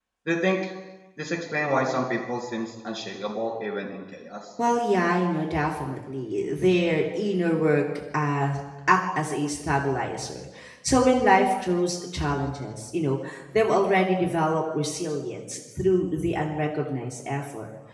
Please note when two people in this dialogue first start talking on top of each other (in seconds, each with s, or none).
none